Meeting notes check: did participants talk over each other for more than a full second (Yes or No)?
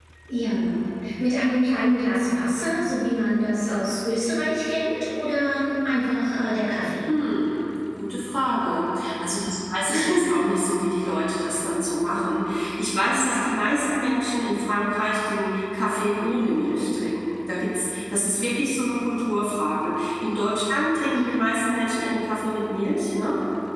No